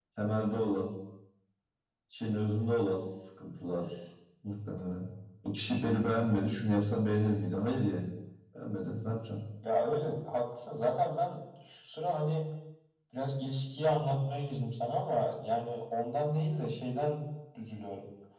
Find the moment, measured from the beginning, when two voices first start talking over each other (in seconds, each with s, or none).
none